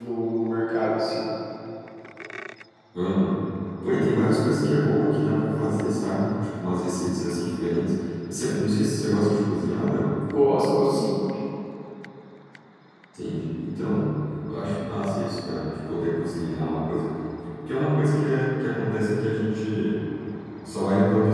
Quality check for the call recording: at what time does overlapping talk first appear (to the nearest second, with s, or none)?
none